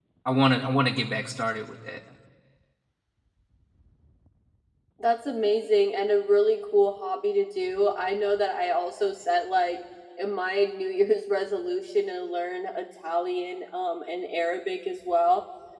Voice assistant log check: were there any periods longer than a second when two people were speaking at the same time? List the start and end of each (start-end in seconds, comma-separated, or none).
none